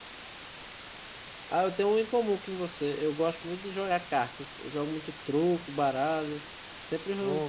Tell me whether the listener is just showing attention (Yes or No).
Yes